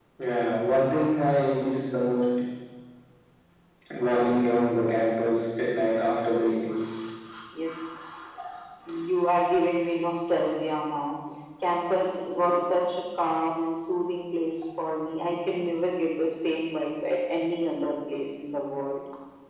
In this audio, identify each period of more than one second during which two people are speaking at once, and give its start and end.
none

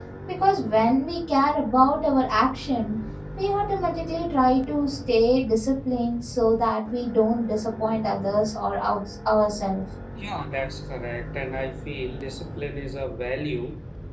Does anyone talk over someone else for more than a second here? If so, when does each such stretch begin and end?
none

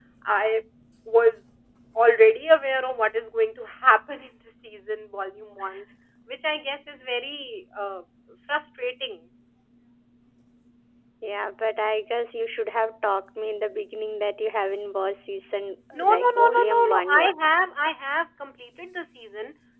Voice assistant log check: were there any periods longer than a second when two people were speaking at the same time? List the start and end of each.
15.9-17.3

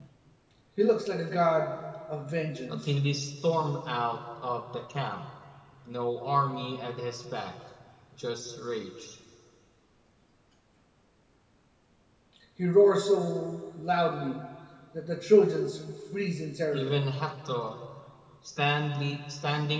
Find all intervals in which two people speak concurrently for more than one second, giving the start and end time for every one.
none

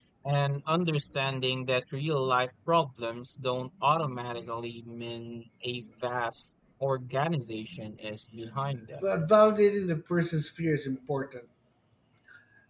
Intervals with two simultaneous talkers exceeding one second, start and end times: none

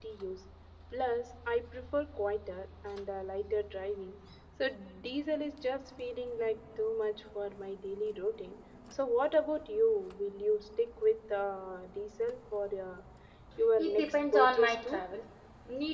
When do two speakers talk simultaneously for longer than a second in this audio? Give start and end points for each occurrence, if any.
13.8-15.0

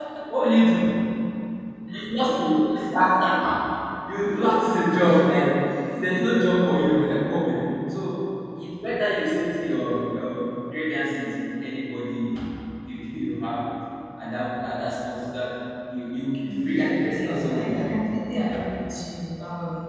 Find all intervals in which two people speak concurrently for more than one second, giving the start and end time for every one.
16.5-18.0

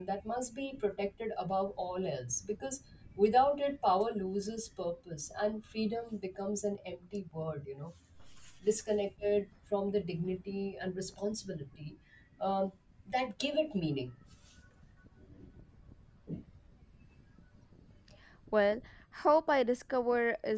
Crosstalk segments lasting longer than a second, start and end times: none

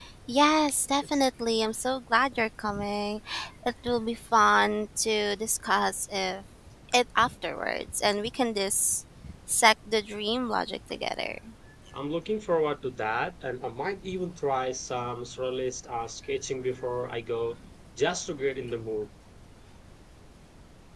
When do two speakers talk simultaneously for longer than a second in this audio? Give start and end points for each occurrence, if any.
none

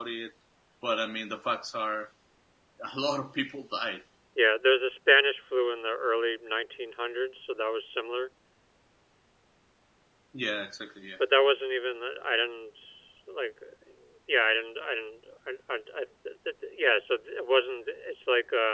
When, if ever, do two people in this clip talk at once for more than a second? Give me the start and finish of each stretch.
none

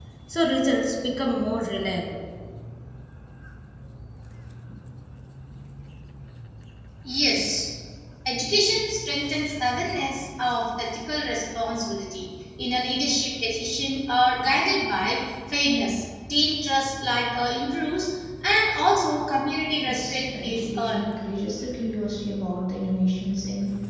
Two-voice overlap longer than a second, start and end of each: 19.7-21.1

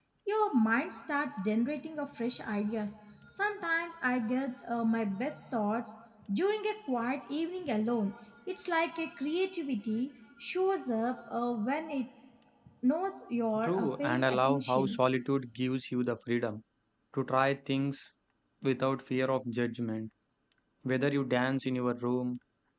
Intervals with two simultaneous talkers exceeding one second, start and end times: 13.6-15.0

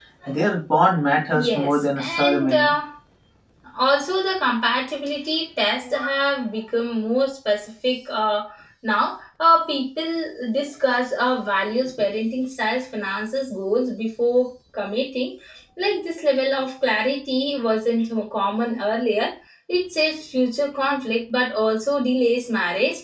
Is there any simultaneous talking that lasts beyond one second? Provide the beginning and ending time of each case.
1.3-2.7

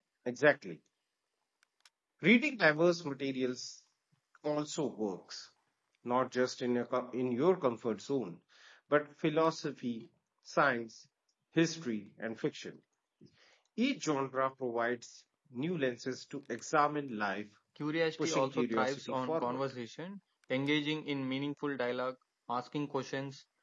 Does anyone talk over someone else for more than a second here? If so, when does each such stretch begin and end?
18.2-19.6

